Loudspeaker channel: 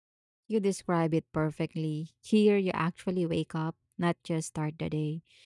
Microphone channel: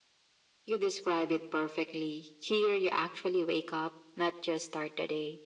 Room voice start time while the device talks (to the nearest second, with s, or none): none